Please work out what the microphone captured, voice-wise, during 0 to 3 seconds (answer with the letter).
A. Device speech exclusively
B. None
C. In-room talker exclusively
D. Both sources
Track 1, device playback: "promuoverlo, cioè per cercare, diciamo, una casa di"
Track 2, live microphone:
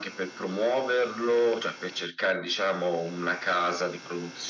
A